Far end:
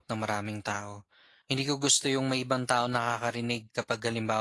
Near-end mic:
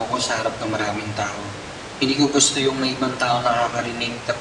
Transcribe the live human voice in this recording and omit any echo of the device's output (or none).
none